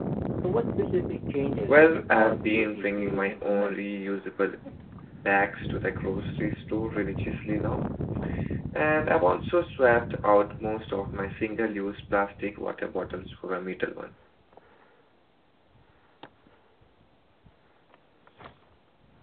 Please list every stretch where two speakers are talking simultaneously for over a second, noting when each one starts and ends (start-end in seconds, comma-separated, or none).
1.7-3.8